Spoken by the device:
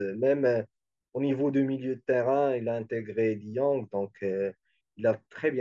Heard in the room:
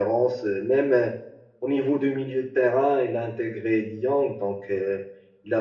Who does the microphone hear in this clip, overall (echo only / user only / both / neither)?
echo only